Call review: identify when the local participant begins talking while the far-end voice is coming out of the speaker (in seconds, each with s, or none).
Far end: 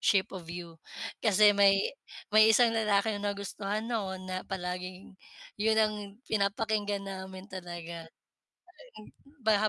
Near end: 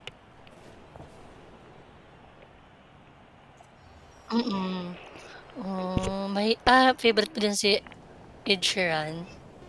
4.3 s